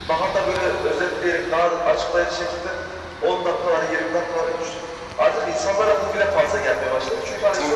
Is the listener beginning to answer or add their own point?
No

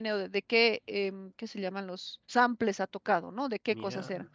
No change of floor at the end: Yes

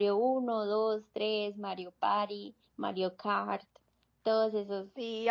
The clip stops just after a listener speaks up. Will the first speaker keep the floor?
No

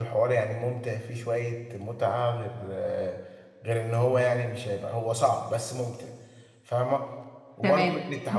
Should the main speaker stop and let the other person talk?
Yes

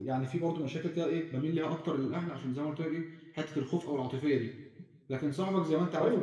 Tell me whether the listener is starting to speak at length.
No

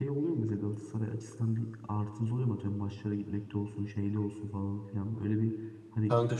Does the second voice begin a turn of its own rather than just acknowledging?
No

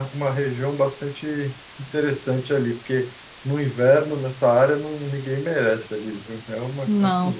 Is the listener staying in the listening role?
No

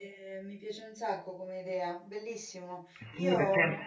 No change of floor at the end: No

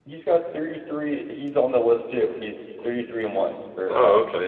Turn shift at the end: Yes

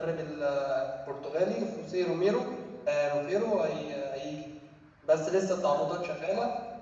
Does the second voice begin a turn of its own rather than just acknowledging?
No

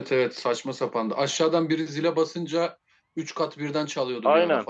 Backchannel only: No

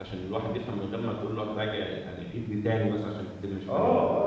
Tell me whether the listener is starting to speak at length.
Yes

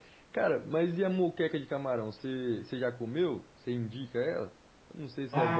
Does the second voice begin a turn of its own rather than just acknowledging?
Yes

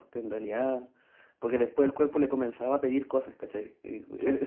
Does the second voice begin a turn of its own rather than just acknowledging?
No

